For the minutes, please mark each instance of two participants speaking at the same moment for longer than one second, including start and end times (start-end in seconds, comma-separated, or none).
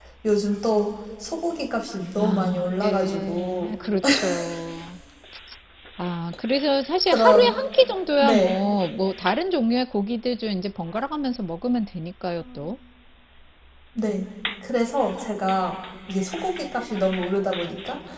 2.2-3.7